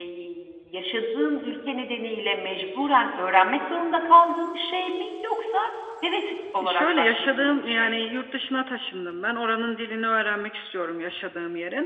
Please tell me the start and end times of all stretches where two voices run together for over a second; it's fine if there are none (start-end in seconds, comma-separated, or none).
6.6-7.9